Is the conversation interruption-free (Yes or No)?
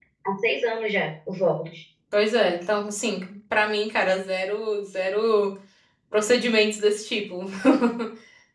Yes